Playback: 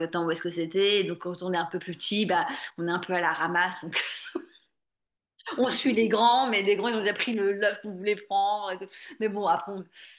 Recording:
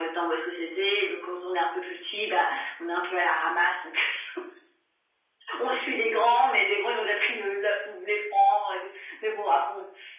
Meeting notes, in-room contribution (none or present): none